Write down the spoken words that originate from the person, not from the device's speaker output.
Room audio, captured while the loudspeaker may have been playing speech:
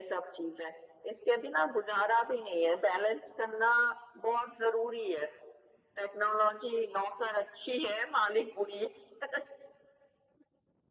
none

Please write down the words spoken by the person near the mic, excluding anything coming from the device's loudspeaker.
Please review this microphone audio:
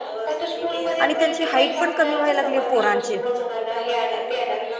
आणि त्यांची हाईट पण कमी व्हायला लागली पोरांची

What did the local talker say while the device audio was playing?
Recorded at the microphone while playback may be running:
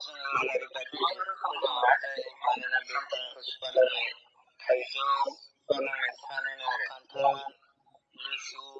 none

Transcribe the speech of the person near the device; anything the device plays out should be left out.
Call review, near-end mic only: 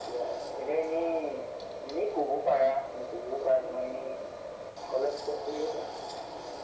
none

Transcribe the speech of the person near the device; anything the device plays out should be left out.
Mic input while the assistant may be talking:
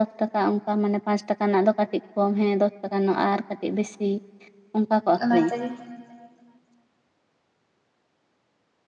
ᱚᱱᱟ ᱛᱮᱜᱮ

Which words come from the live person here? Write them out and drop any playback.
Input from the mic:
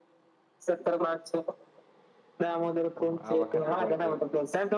ઓહો આ વખતે વર્ધી

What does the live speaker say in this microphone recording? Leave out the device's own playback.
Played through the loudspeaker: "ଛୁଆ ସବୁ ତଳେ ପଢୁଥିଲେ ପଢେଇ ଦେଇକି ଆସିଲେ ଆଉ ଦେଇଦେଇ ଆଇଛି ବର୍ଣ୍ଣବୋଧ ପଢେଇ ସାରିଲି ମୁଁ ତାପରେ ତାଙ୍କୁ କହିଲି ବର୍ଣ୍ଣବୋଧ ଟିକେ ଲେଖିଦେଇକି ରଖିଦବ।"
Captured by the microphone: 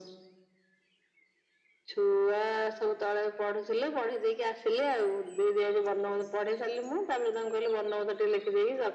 none

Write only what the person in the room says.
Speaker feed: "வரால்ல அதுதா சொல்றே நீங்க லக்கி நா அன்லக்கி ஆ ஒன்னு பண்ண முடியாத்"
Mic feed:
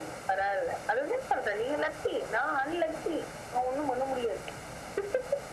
none

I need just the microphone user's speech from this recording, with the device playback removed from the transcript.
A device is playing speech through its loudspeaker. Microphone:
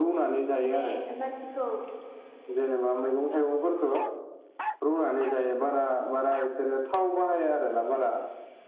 माने मानसि खौ

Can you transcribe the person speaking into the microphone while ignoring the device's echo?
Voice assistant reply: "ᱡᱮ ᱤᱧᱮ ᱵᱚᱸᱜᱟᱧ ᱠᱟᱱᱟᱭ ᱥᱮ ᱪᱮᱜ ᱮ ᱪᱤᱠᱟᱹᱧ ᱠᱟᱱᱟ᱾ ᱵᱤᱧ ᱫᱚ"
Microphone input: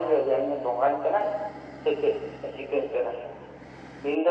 none

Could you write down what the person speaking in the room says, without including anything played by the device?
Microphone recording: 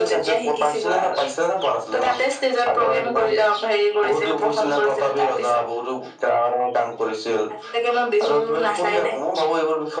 none

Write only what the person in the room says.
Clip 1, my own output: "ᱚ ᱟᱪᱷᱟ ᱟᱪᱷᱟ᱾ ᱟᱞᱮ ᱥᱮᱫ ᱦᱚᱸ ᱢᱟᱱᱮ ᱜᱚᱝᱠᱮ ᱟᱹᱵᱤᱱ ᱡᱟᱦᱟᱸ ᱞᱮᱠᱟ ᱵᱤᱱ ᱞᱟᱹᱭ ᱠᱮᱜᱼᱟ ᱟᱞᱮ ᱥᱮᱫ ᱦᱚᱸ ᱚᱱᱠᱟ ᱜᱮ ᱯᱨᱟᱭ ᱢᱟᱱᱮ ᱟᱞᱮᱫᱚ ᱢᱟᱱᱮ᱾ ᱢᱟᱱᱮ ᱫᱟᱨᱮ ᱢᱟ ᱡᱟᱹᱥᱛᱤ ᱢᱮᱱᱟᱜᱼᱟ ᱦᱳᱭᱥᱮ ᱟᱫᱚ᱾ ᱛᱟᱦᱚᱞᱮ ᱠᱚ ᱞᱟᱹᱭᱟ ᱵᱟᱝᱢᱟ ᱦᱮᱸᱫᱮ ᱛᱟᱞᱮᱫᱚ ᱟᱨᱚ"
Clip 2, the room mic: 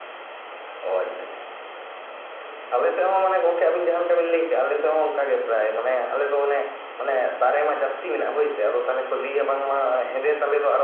none

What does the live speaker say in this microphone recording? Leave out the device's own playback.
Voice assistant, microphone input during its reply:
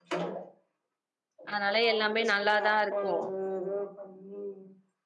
அதனால எல்லாமே நல்லாதான் இருக்கும்

